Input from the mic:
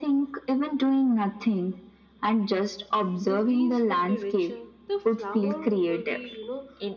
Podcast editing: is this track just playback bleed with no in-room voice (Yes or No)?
No